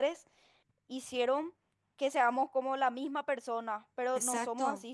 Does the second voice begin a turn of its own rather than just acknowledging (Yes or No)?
No